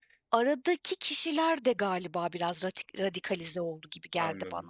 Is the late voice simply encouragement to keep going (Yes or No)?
No